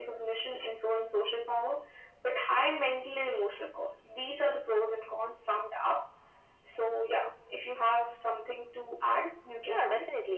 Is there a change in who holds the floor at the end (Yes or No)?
Yes